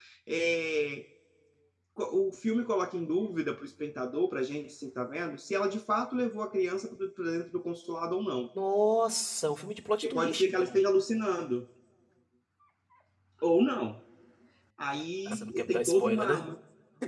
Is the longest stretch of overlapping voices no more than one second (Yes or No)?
No